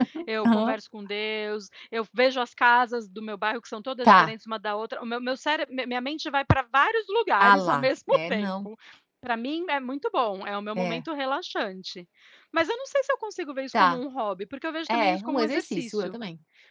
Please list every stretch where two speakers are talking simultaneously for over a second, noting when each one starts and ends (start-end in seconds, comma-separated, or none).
7.4-8.7, 14.9-16.1